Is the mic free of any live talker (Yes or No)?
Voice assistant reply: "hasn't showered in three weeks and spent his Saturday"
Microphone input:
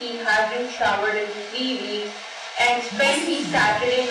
No